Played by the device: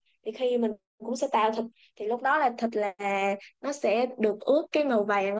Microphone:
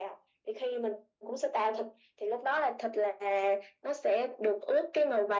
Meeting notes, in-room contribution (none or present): none